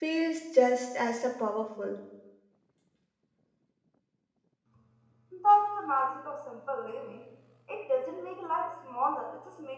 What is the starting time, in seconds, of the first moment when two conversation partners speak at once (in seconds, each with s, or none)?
none